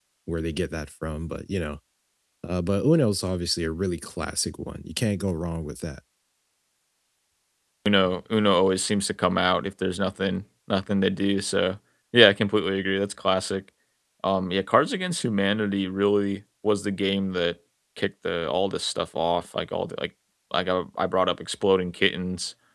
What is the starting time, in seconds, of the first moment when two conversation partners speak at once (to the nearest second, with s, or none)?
none